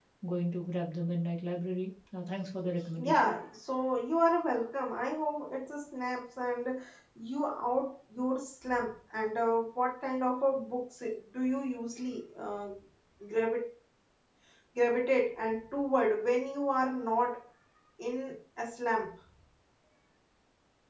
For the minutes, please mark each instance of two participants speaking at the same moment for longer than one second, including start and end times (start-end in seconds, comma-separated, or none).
none